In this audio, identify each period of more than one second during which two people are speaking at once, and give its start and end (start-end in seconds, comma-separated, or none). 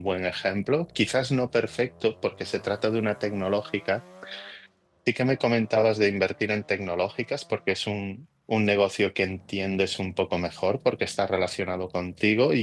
none